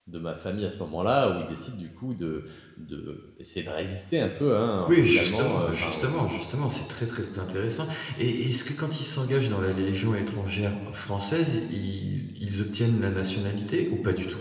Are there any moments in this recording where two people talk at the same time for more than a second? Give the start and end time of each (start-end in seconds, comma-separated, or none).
4.9-6.2